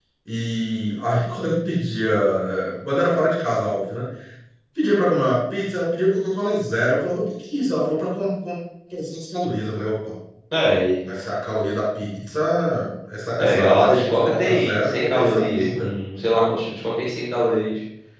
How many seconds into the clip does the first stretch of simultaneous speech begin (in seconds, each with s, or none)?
13.4 s